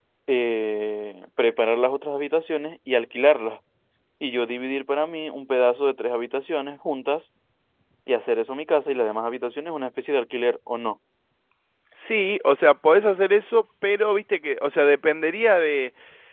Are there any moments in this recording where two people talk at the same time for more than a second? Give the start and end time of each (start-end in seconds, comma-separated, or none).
none